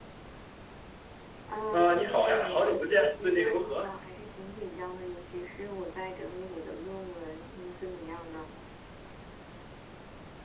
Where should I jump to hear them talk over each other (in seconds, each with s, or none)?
1.7 s